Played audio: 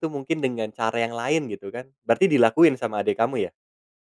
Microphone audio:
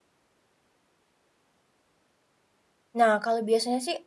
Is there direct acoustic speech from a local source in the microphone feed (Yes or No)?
Yes